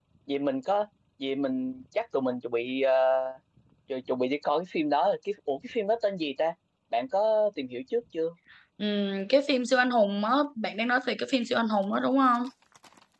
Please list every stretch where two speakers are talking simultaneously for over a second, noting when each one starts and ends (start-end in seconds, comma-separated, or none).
none